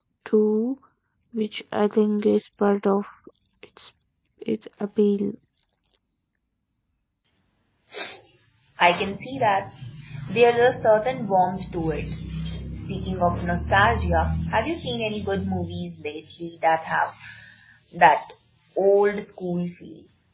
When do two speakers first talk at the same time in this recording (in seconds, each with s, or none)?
none